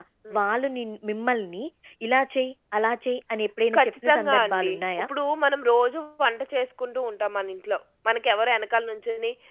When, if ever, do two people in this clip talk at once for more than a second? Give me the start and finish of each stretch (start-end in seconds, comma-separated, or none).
3.8-5.1